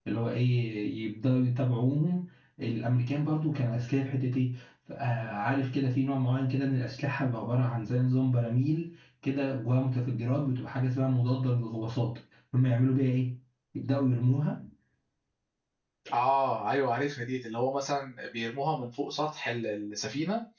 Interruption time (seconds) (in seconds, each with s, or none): none